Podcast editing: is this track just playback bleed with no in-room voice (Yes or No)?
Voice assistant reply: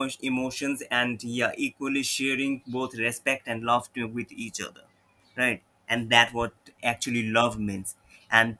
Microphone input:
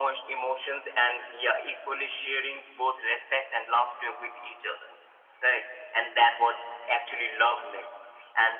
Yes